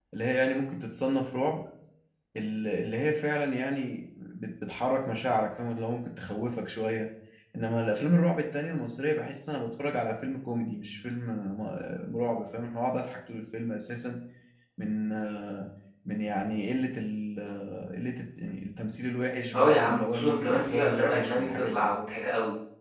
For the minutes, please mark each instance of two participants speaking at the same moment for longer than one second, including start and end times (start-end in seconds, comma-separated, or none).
19.5-21.9